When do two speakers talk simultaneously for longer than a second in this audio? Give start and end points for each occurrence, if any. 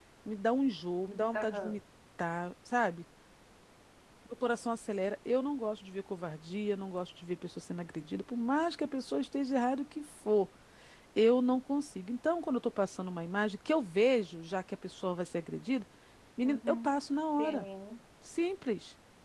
none

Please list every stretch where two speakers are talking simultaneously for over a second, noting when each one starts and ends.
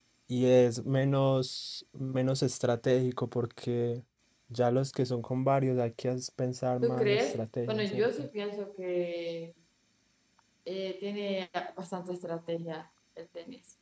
6.8-8.2

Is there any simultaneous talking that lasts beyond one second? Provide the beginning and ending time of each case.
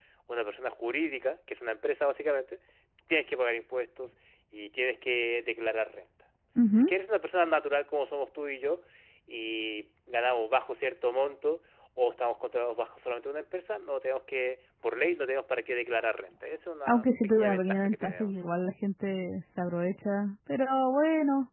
16.9-18.3

